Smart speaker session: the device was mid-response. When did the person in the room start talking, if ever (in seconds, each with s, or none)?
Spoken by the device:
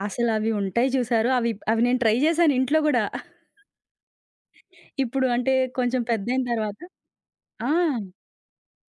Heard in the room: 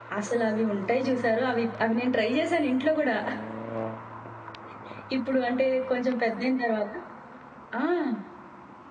none